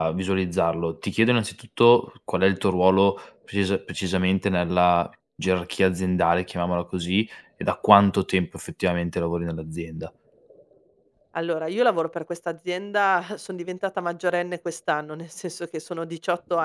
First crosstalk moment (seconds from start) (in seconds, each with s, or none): none